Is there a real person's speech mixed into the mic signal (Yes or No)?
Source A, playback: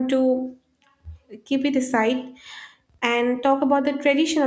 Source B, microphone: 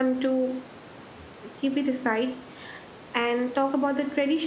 No